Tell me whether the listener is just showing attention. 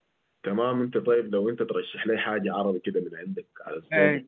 No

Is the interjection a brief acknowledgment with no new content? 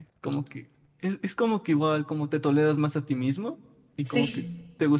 Yes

